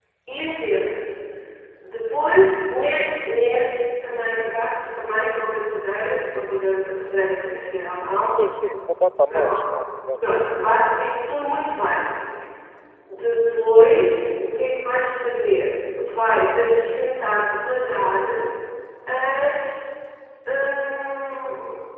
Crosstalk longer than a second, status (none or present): none